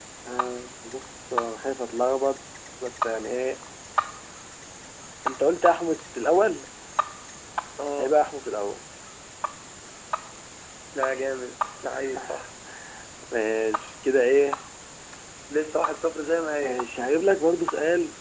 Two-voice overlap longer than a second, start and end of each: none

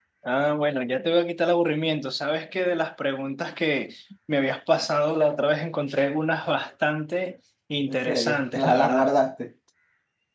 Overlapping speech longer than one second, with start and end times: 7.9-9.1

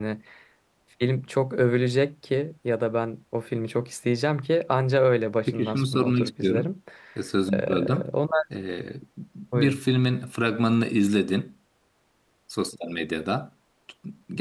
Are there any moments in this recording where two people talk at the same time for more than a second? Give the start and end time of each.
5.5-6.7

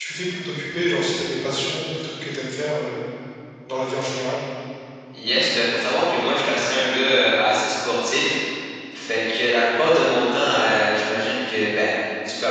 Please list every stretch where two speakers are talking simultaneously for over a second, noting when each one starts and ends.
none

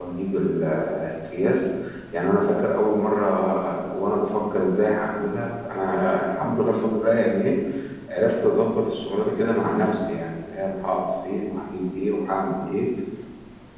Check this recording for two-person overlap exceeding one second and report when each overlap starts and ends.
none

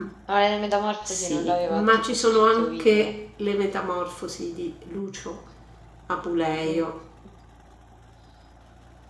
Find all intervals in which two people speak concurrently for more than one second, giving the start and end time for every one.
1.1-3.1

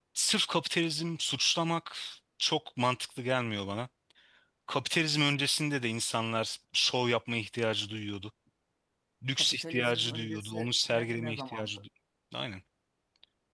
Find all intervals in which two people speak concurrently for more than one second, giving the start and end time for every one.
9.4-11.8

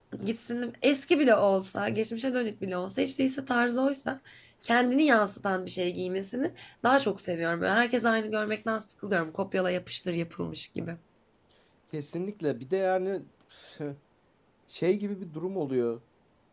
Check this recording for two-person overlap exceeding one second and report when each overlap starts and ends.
none

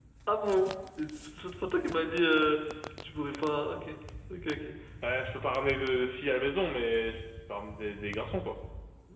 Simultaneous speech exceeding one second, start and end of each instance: none

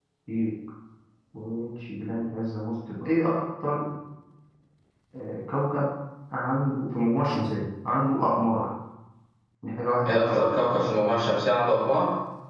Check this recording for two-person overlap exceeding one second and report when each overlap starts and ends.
none

